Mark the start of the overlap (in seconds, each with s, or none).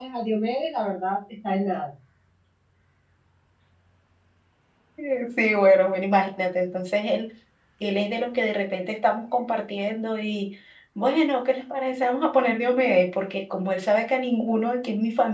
none